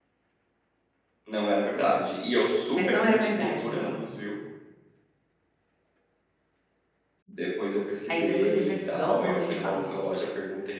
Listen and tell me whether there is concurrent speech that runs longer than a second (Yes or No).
Yes